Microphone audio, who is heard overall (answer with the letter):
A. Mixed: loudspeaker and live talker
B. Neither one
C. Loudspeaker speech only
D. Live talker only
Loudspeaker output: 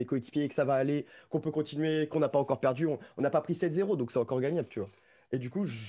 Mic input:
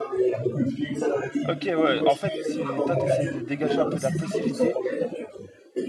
A